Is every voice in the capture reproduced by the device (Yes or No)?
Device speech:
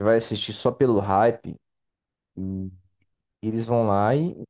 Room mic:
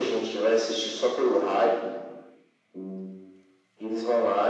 Yes